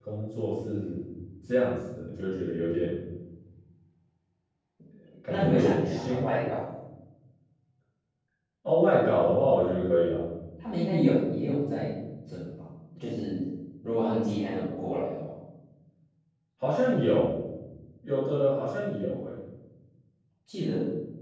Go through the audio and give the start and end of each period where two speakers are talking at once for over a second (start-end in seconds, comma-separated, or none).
5.3-6.5